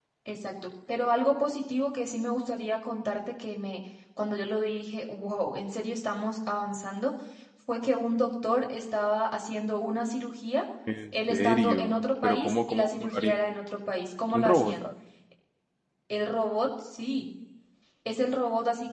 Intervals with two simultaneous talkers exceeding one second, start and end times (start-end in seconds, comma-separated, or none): 11.3-13.4